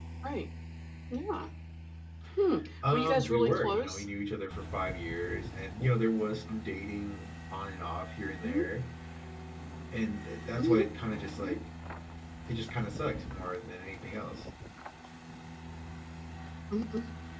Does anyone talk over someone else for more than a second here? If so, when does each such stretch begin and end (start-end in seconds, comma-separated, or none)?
2.8-4.0